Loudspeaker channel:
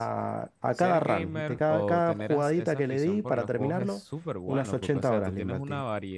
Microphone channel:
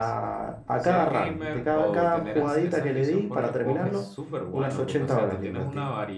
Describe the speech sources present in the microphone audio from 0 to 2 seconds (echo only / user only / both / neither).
echo only